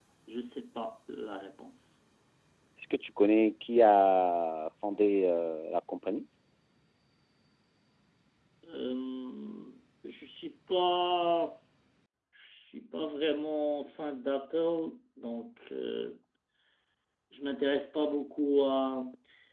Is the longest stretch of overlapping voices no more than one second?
Yes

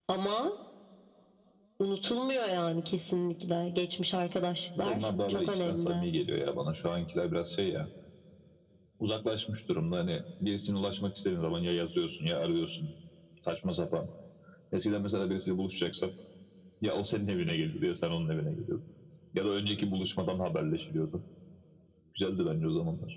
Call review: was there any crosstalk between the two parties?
Yes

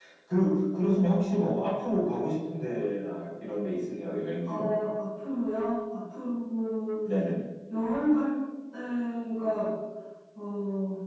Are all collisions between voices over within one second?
Yes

